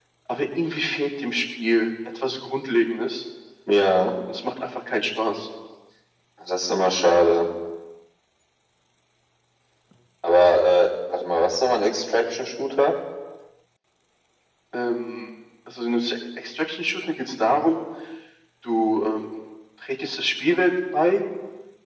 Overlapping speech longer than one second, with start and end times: none

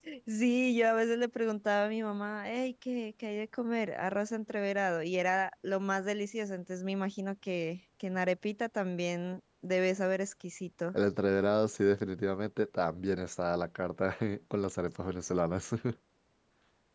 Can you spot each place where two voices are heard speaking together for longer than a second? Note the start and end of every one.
none

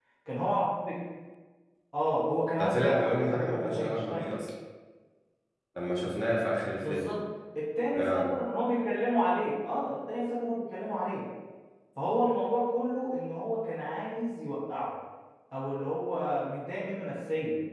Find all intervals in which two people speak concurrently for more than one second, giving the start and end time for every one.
2.6-4.3

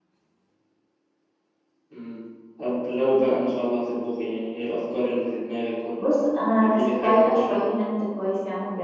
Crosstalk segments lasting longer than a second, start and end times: 6.0-7.6

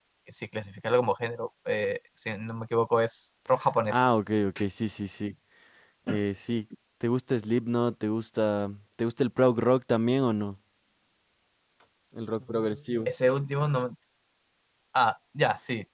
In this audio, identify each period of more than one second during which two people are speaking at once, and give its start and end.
none

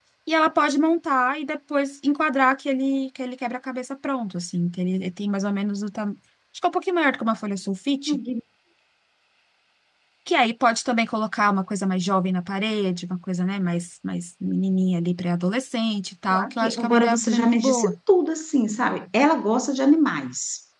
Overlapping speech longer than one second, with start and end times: 16.4-17.9

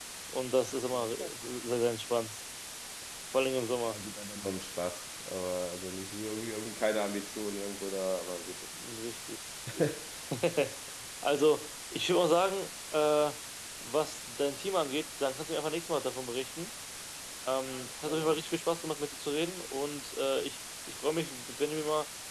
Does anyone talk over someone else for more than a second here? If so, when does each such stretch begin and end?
none

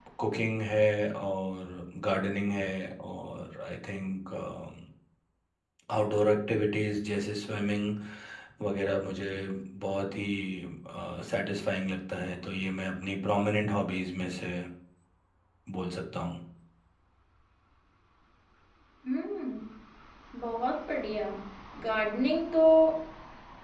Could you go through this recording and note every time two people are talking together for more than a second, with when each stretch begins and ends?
none

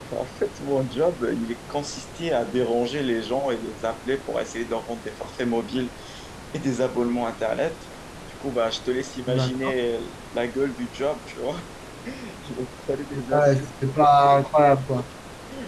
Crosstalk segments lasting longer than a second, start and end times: none

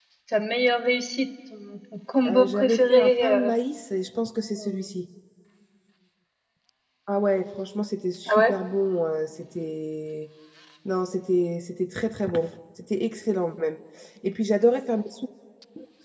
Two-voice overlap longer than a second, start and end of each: 2.3-3.5

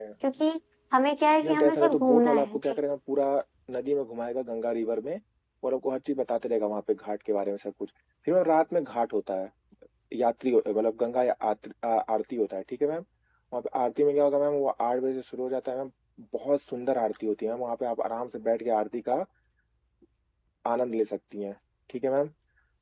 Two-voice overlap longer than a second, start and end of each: 1.4-2.8

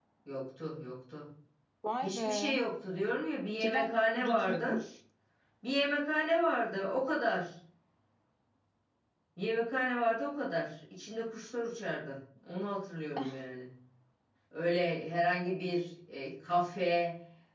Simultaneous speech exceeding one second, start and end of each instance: 3.6-4.8

